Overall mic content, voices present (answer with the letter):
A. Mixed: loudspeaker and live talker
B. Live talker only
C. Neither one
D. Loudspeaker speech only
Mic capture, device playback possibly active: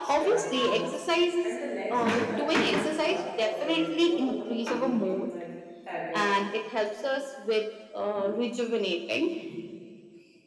A